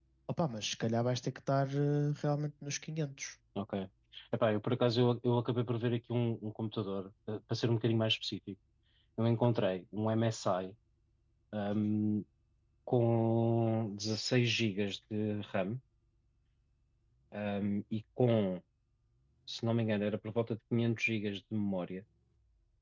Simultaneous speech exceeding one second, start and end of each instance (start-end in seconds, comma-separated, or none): none